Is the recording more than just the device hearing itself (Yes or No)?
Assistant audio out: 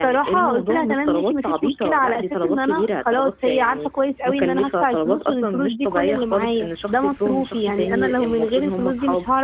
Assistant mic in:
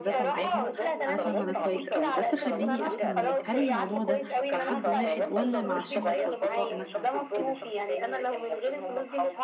Yes